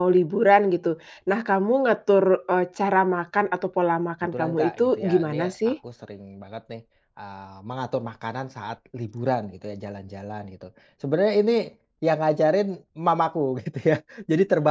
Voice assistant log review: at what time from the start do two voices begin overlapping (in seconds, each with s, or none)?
4.3 s